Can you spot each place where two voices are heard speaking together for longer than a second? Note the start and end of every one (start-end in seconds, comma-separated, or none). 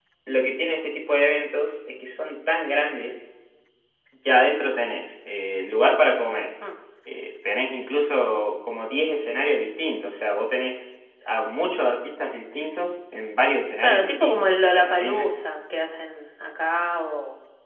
13.8-15.3